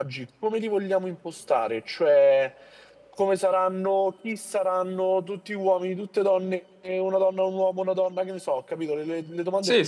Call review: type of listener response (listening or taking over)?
taking over